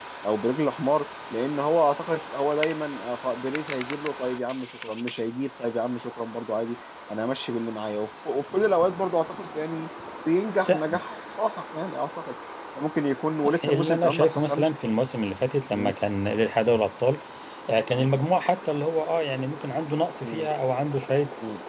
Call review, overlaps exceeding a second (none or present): present